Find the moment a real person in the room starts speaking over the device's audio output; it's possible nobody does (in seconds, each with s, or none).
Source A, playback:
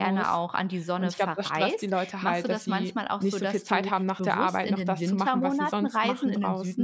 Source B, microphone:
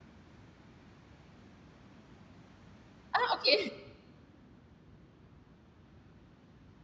3.1 s